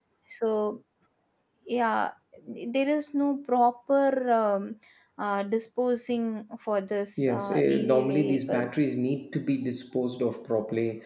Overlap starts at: 7.2 s

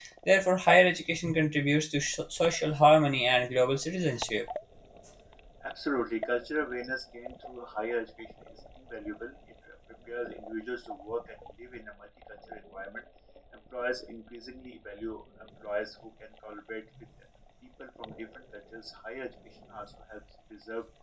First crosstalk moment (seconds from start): none

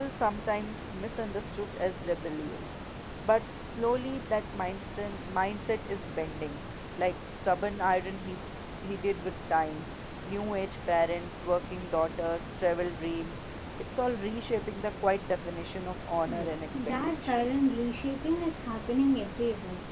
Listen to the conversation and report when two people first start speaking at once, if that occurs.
16.3 s

